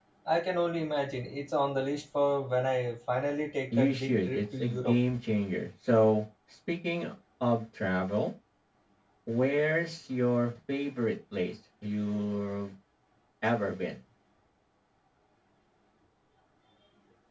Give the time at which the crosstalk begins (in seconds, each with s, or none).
3.7 s